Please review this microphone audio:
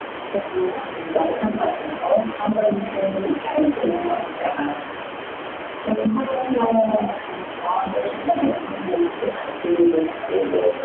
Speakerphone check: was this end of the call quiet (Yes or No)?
Yes